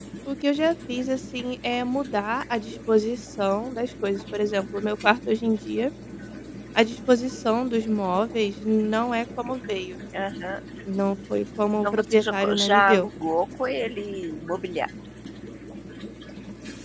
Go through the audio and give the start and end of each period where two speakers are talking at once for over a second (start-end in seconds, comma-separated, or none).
11.8-13.1